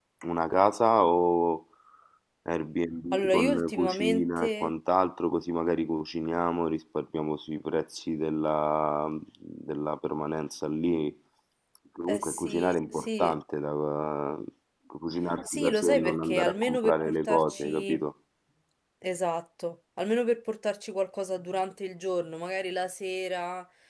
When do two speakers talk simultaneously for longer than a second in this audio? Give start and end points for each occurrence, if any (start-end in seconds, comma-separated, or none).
3.1-4.7, 12.1-13.3, 15.5-18.0